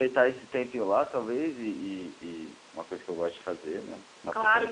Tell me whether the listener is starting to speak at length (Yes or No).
Yes